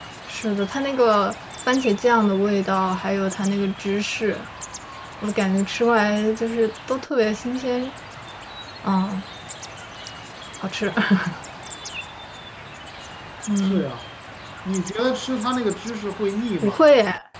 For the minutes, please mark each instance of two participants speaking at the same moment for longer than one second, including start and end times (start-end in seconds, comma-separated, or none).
none